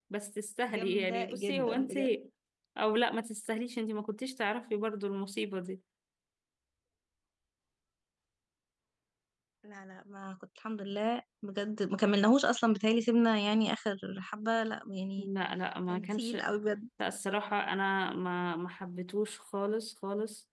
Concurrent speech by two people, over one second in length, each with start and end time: 0.7-1.9

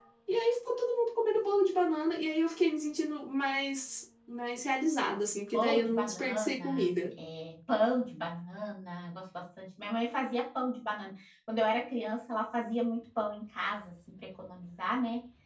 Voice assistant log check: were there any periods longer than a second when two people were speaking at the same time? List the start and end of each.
5.5-6.9

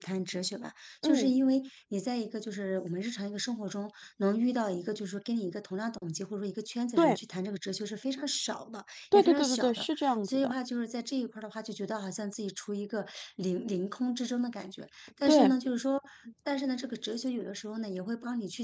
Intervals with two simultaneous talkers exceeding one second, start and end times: 9.1-10.5

